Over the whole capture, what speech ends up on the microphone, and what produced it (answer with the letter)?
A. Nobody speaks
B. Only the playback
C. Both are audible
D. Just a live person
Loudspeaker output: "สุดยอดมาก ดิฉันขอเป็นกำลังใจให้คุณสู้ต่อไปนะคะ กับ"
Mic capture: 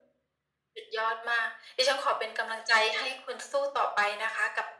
B